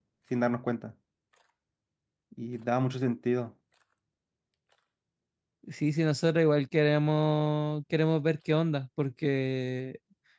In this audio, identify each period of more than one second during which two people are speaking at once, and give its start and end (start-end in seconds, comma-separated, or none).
none